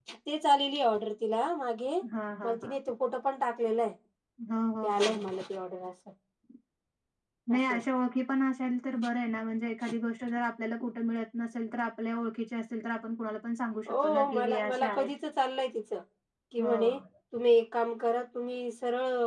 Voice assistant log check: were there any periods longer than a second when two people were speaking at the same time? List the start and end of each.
13.9-15.1

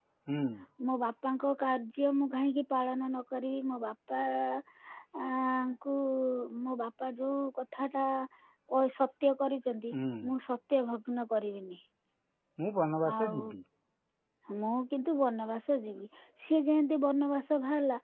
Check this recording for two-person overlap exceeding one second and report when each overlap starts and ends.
none

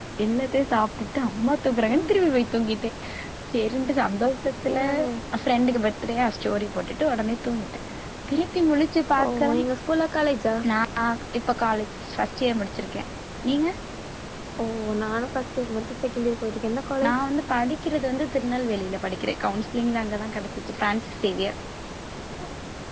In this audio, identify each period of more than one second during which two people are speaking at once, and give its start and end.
none

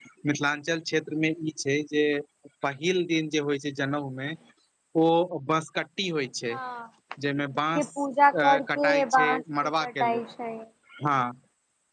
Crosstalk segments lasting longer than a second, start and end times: 8.4-10.2

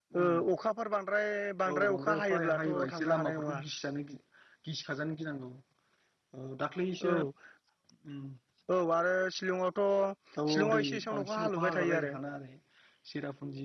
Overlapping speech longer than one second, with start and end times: 1.7-3.6, 10.5-12.2

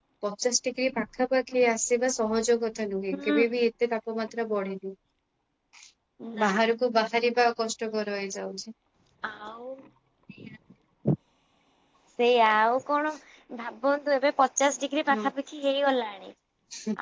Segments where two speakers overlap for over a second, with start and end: none

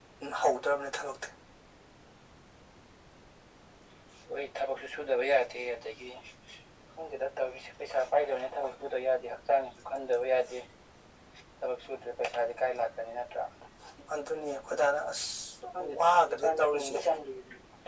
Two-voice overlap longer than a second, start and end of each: 15.8-17.0

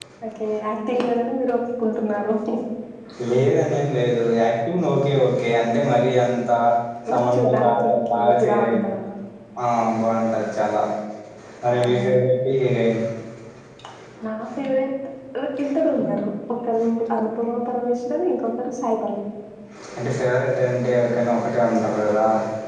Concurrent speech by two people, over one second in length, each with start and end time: 7.3-8.9

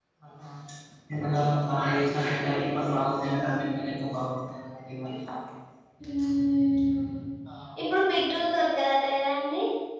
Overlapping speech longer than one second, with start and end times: none

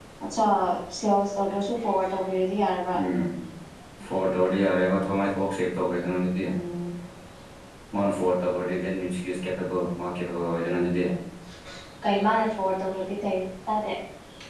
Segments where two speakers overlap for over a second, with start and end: none

